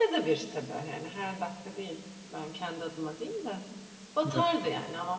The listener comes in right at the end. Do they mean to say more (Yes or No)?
No